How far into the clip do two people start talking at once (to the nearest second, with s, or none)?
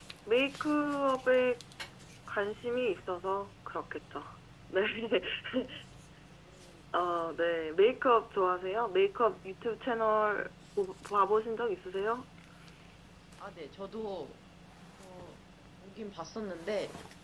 none